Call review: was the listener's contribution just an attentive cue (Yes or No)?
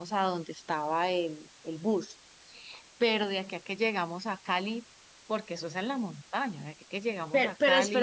No